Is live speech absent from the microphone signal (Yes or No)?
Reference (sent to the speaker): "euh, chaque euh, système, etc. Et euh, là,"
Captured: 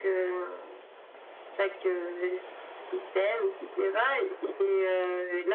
Yes